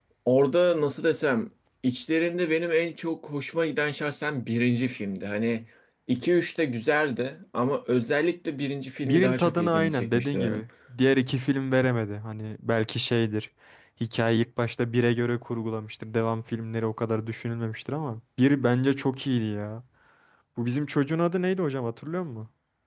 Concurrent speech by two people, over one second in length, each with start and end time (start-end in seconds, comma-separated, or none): 9.0-10.6